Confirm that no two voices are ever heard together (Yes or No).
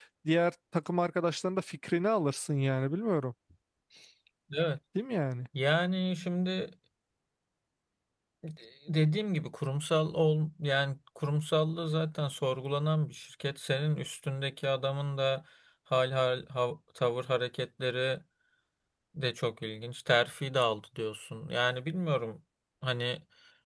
Yes